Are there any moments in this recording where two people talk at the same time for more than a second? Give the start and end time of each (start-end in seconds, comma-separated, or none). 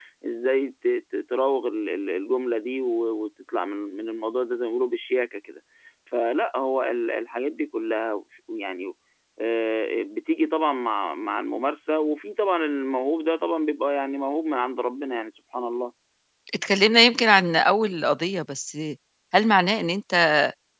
none